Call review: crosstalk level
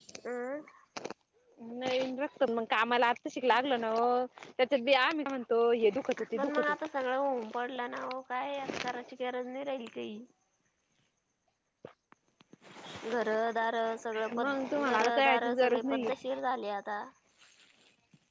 present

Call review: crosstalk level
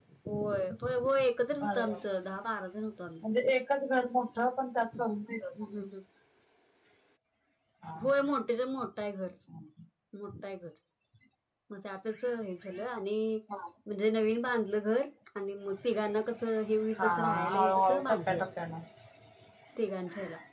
present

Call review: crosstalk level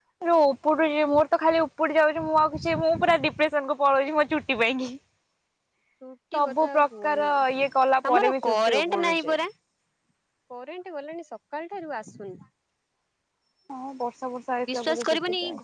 present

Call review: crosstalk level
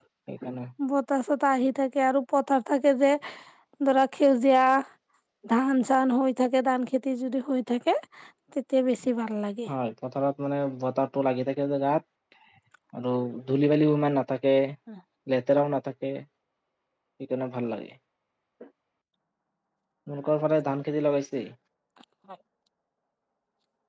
none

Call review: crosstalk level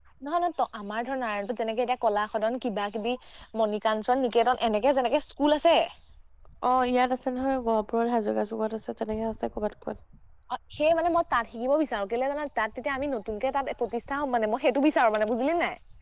none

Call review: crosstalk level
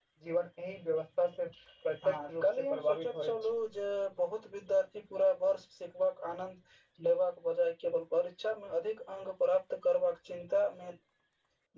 present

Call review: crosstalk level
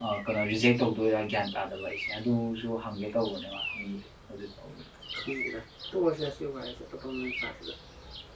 none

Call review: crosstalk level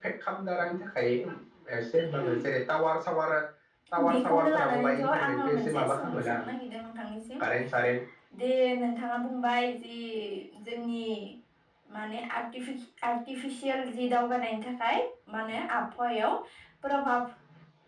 present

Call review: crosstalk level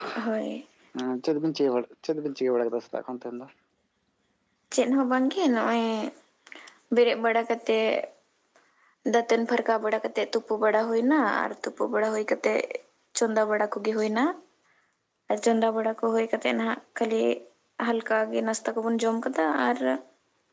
none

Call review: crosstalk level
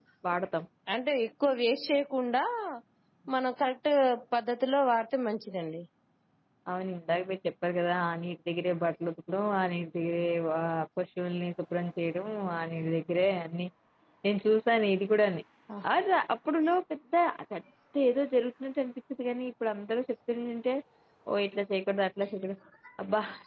none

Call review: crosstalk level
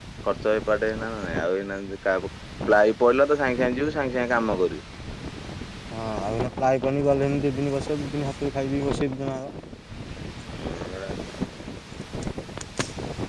none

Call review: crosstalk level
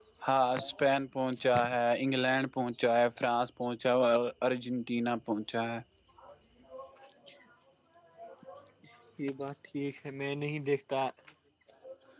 none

